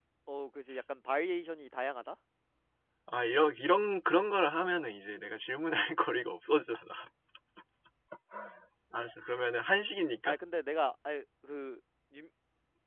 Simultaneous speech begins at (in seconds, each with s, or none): none